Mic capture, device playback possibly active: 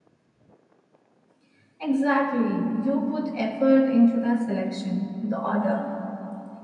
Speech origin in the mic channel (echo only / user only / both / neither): echo only